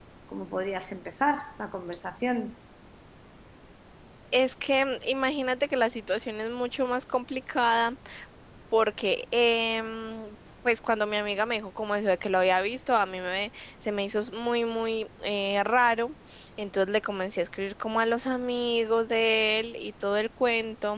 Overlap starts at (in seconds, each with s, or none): none